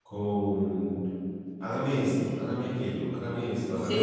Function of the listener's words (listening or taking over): listening